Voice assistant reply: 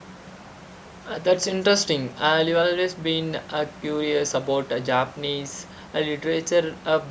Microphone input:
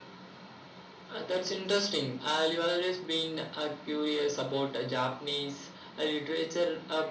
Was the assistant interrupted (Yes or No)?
No